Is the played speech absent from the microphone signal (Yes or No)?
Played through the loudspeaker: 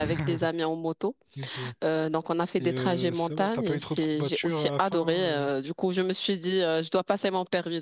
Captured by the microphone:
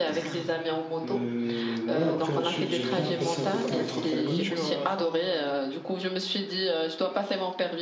No